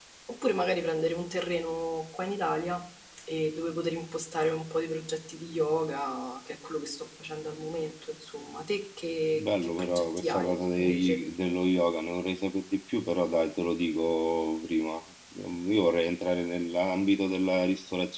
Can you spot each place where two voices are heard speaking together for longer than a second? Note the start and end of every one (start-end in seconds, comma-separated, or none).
9.3-11.2